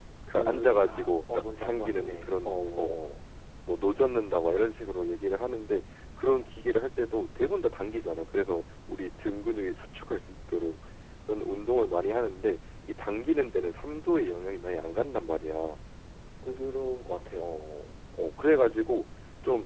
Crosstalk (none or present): present